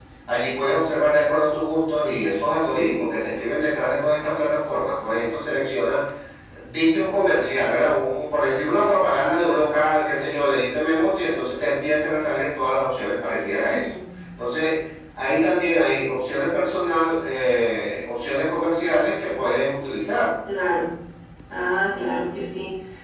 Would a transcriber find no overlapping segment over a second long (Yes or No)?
Yes